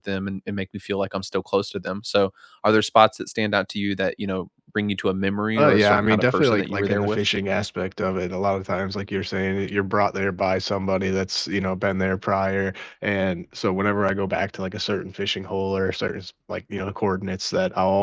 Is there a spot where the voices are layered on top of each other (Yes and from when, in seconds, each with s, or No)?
Yes, from 5.6 s